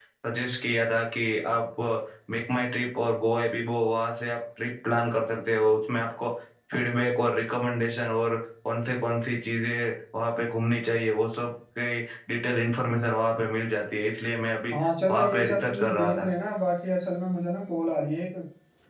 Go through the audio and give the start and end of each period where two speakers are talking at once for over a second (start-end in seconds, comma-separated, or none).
15.1-16.3